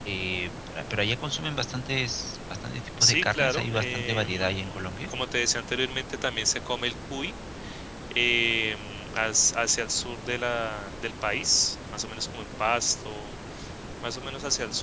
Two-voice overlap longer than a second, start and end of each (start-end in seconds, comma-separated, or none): 3.0-5.1